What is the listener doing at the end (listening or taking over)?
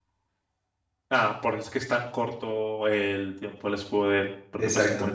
listening